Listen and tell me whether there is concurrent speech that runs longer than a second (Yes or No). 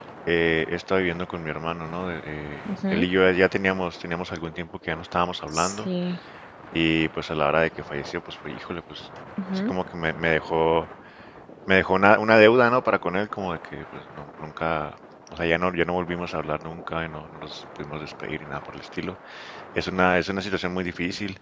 No